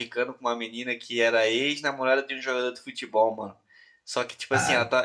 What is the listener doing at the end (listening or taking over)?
listening